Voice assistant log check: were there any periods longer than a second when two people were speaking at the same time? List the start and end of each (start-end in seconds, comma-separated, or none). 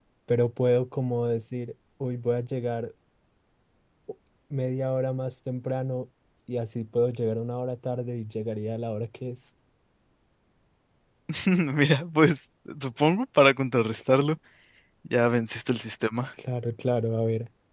none